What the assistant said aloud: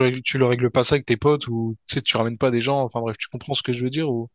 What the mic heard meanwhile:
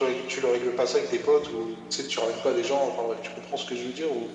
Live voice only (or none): none